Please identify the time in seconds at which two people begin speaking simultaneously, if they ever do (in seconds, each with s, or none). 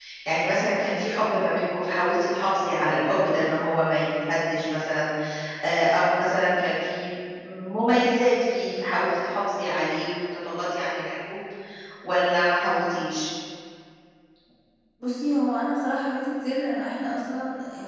none